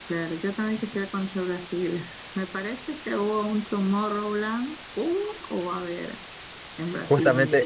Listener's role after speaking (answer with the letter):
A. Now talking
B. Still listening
A